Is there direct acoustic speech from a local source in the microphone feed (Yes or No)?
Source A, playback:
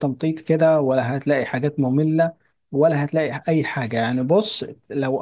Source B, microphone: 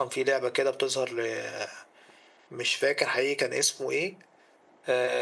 Yes